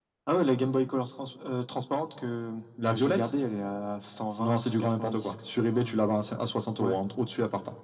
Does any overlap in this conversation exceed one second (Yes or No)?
Yes